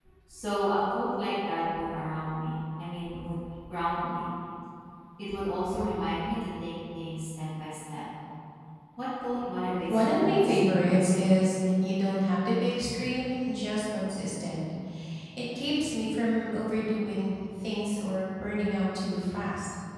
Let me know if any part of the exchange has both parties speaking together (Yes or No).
Yes